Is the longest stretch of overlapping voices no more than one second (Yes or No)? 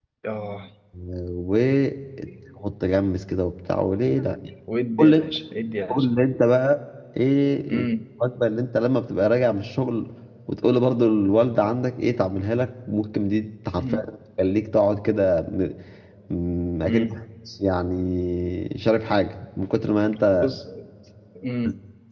Yes